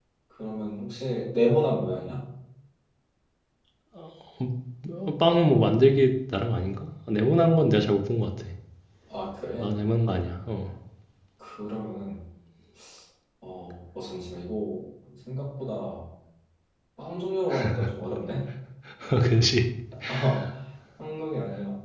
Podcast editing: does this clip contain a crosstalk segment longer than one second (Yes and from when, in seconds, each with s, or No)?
No